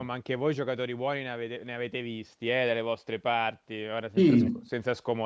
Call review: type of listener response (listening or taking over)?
listening